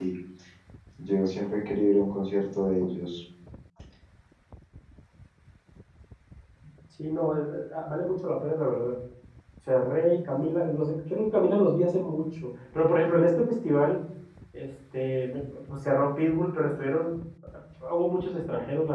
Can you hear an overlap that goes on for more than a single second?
No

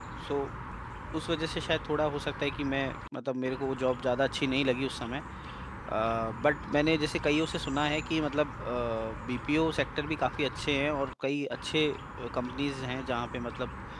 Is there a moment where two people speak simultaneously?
No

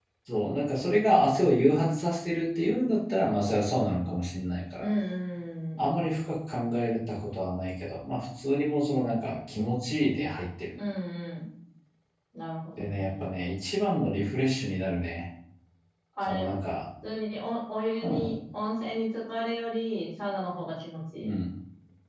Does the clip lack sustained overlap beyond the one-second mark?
Yes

